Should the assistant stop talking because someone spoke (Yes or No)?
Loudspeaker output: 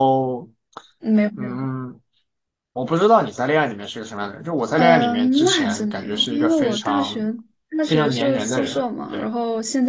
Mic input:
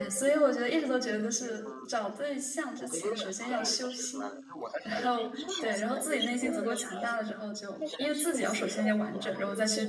Yes